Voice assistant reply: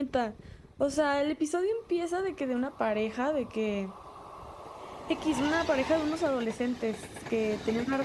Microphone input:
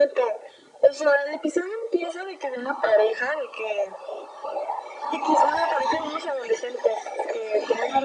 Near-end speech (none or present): none